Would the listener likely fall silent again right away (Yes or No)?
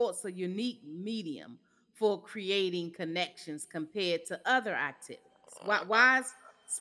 Yes